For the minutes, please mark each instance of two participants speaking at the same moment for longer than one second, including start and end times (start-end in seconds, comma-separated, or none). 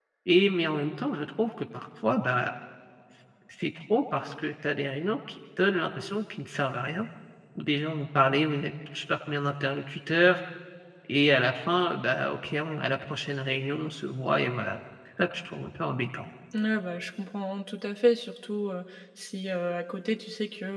none